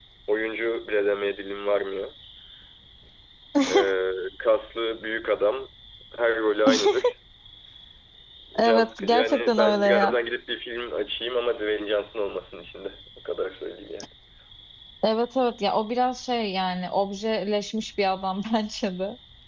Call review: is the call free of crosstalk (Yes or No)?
No